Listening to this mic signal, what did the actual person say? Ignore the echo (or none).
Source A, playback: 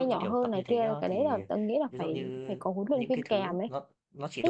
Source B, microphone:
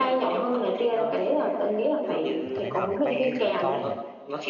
rồi tập thế nào để tay, kiểu, thon này,